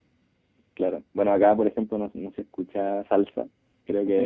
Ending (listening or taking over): taking over